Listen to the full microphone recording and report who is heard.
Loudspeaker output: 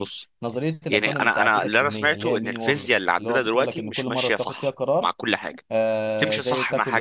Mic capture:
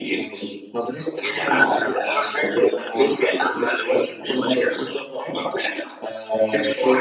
echo only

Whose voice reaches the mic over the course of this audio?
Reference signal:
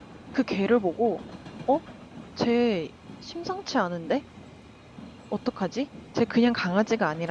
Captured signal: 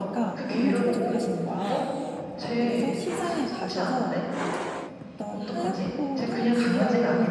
both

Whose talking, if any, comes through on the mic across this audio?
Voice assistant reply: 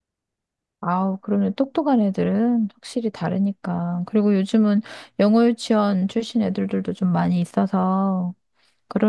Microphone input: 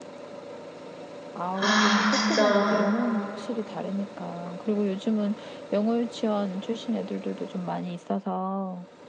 both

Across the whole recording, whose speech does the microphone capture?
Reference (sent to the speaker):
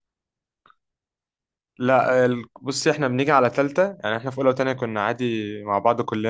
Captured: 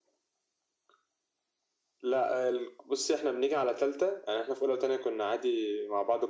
echo only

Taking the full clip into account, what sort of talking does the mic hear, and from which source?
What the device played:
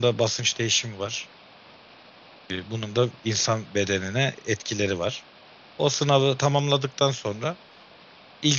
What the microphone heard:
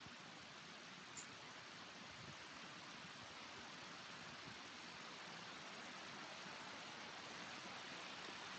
neither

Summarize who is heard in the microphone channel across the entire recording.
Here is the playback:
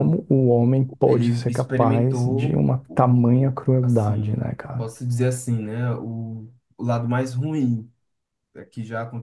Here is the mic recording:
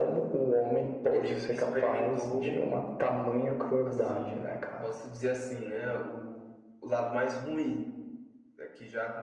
echo only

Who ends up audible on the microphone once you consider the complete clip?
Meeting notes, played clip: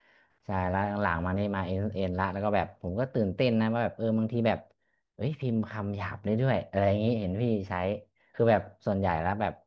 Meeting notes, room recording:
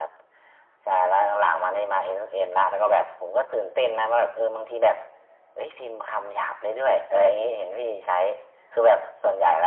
echo only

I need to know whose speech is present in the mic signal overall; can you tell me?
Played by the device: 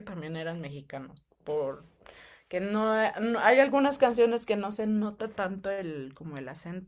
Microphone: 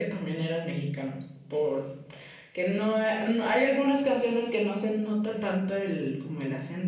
echo only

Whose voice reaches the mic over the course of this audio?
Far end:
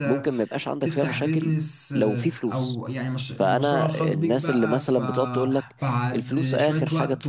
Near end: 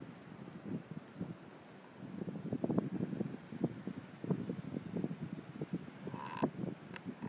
neither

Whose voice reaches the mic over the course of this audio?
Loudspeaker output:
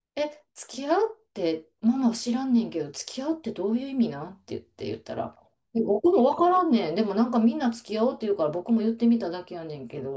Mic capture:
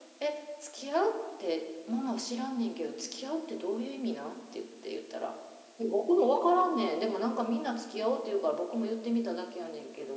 echo only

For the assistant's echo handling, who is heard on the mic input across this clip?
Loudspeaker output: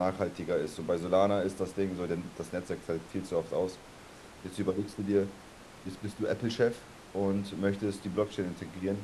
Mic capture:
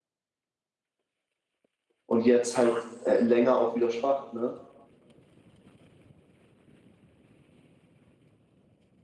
user only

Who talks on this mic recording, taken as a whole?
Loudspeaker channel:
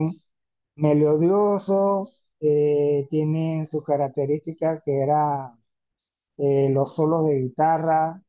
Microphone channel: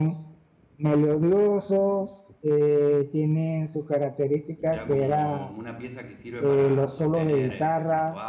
both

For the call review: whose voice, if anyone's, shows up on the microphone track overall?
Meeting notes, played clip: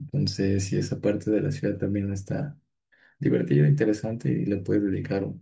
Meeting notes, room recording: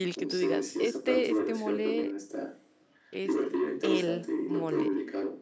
both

